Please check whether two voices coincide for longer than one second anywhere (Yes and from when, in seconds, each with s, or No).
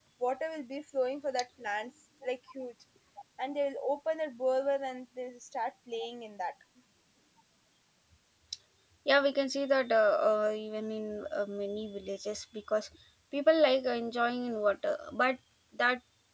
No